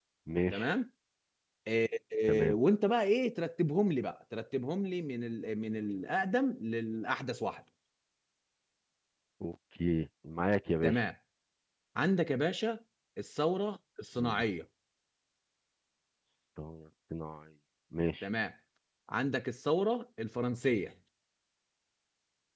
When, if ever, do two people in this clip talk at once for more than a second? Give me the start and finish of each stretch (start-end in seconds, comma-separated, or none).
none